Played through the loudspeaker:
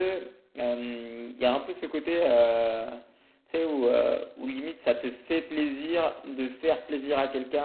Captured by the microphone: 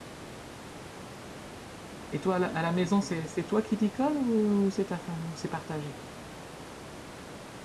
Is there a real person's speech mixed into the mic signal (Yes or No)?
Yes